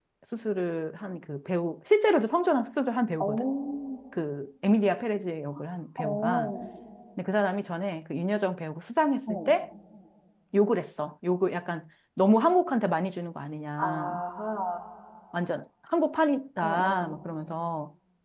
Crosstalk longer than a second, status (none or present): none